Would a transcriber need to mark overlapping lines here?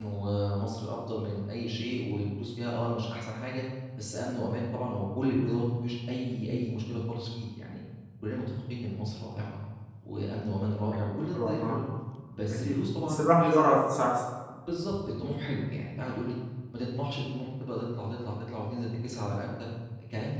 Yes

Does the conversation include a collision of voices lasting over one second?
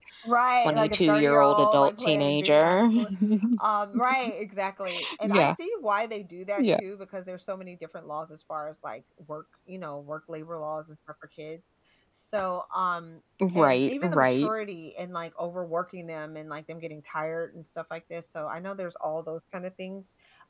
Yes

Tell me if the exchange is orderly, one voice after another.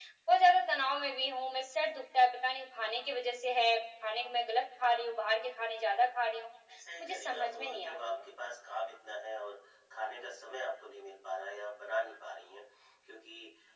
No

